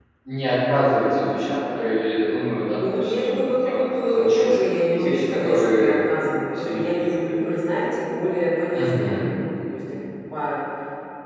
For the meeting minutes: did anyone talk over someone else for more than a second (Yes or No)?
Yes